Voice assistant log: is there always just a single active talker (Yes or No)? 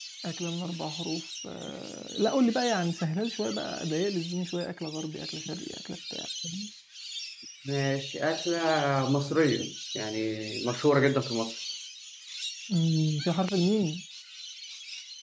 Yes